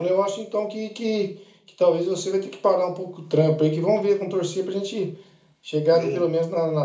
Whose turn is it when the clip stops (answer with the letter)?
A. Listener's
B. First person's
B